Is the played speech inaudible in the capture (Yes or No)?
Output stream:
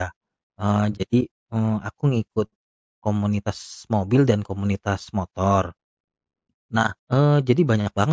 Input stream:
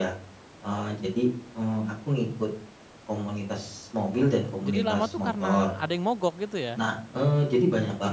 No